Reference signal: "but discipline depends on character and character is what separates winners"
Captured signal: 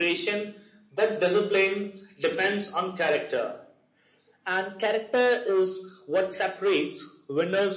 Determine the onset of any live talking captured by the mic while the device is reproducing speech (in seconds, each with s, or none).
none